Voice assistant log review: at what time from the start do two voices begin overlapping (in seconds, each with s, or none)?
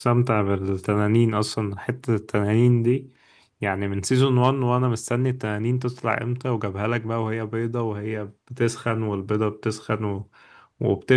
none